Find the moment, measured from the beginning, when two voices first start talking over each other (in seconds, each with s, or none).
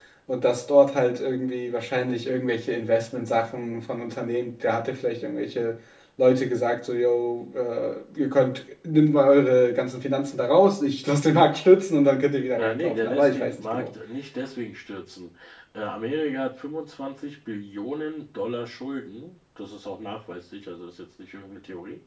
12.6 s